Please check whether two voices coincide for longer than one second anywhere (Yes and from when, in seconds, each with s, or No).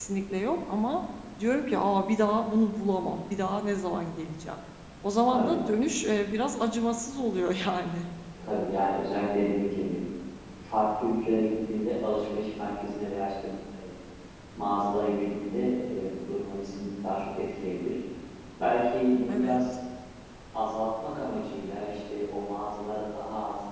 No